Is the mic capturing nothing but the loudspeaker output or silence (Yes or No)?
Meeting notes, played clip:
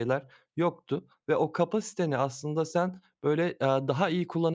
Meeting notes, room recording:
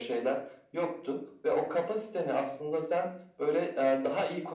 Yes